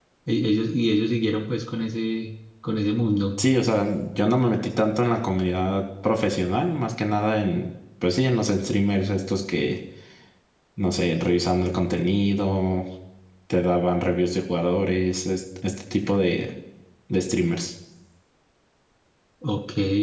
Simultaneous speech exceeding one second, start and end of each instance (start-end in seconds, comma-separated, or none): none